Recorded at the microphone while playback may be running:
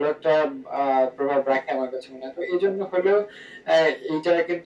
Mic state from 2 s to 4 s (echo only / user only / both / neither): echo only